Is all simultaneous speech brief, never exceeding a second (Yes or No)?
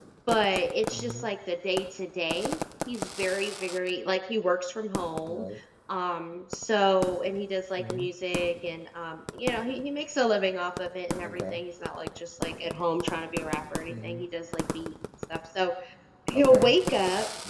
Yes